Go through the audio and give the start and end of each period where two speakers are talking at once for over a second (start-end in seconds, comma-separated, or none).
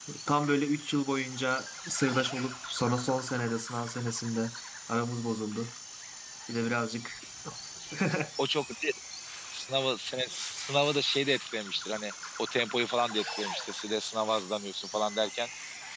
none